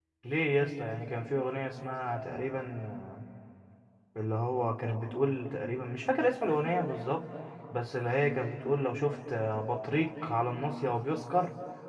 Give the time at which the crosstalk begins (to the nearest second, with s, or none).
none